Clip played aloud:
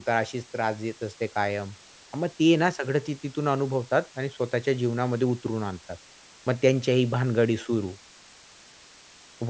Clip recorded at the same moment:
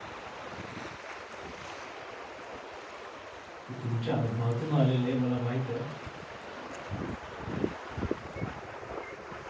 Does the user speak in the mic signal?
Yes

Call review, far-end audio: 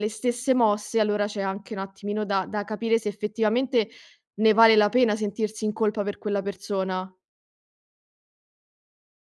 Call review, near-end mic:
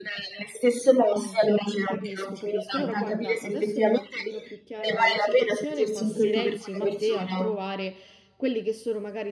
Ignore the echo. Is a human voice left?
Yes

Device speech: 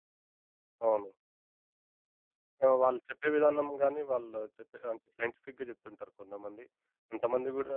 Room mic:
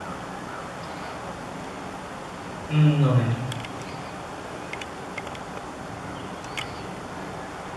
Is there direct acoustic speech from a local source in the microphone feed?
Yes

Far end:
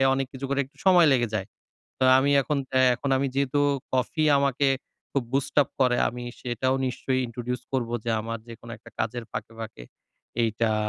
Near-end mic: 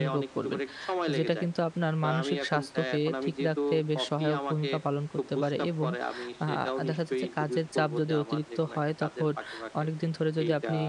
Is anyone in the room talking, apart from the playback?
Yes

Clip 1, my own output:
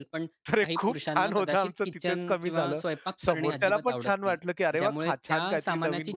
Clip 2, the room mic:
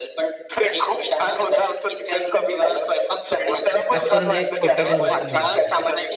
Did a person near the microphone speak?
Yes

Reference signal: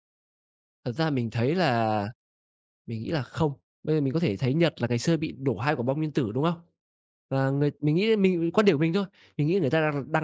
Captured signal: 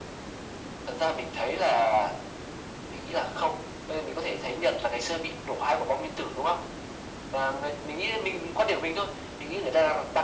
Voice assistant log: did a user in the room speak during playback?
No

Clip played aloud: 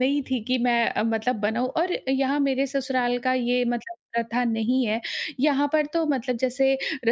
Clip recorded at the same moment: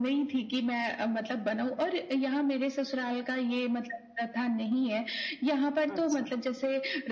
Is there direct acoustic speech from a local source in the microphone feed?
Yes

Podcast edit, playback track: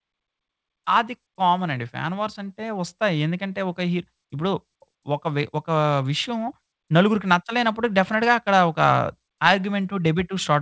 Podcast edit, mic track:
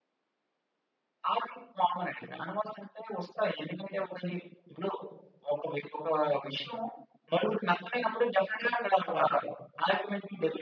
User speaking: No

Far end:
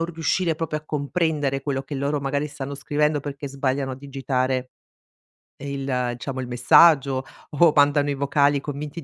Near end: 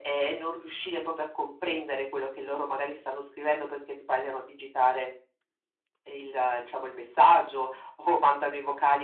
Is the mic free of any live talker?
Yes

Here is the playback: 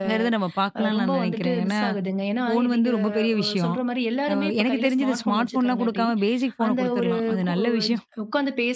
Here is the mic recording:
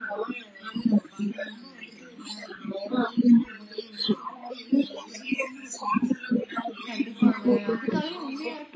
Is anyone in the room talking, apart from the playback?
Yes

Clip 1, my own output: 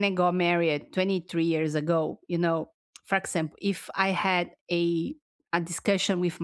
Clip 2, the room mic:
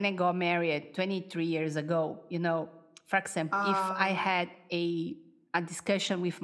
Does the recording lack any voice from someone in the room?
No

